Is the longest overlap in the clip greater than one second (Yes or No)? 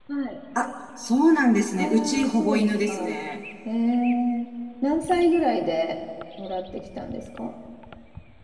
Yes